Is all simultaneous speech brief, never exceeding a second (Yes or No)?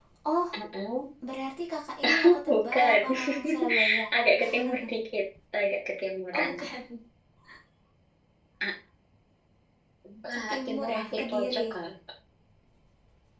No